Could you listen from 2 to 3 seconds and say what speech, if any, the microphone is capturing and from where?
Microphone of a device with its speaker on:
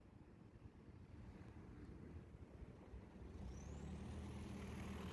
neither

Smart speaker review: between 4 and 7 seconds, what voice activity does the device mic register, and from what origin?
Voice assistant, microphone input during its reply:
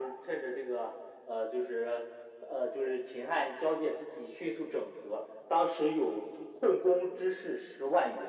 echo only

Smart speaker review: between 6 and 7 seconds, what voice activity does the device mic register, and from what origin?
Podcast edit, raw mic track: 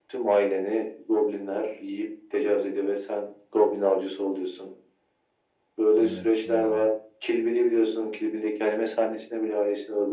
both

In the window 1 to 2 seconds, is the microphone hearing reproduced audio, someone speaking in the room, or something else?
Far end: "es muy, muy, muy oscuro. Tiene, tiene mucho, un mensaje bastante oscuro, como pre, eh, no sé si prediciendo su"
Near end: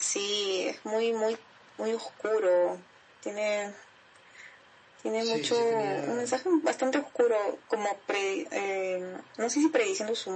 echo only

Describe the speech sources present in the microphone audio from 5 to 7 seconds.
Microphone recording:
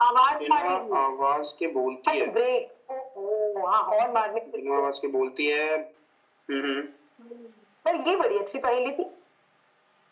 echo only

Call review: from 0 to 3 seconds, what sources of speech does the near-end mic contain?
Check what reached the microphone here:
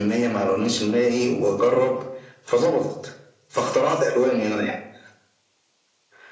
echo only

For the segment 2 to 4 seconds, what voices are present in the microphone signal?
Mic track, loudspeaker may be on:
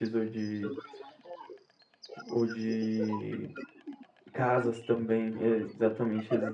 both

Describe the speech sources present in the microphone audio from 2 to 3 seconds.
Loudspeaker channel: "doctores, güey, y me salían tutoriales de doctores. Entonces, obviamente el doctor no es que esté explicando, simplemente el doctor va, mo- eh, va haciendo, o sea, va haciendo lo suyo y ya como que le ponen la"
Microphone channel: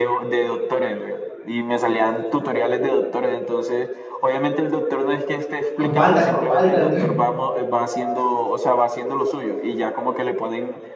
echo only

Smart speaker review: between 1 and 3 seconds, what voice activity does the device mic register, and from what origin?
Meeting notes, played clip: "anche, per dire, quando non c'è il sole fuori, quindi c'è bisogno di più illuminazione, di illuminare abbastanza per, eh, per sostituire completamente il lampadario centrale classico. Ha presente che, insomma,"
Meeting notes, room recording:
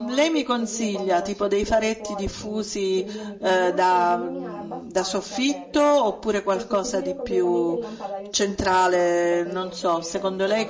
both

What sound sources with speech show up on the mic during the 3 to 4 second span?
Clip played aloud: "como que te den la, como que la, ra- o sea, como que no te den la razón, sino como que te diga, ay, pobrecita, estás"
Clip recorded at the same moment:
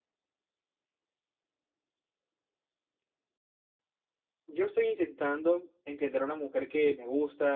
neither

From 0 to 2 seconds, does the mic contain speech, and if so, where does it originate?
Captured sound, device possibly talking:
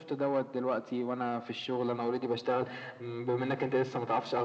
echo only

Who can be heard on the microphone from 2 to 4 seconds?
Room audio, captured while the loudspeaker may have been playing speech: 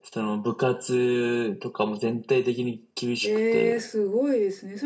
both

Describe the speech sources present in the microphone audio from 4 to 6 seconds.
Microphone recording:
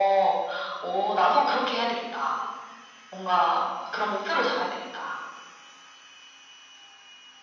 echo only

